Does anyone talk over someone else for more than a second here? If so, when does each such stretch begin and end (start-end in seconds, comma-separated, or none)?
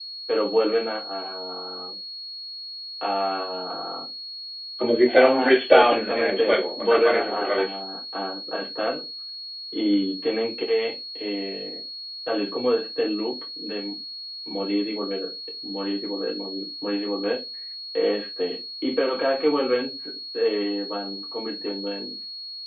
5.1-7.8